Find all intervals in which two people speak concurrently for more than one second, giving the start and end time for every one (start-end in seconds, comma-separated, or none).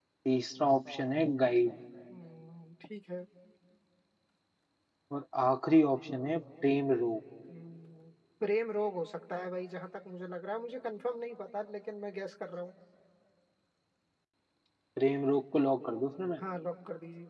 none